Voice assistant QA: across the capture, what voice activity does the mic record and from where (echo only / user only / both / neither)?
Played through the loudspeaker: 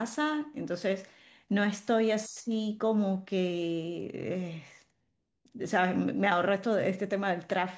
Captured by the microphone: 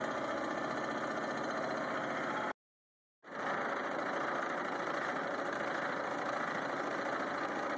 neither